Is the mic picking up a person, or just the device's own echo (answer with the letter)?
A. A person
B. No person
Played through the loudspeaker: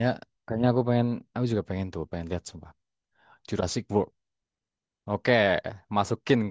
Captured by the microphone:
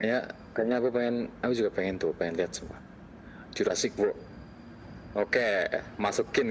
B